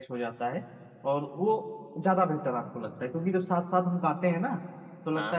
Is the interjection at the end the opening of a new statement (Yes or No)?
No